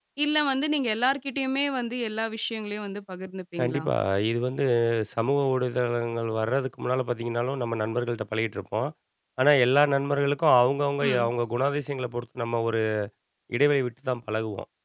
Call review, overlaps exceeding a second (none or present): none